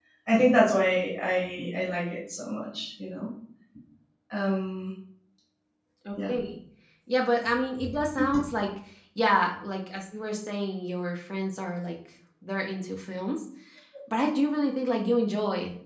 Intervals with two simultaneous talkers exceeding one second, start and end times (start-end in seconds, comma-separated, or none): none